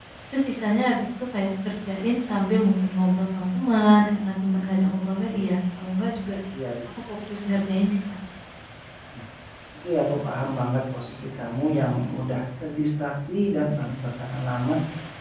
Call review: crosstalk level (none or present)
none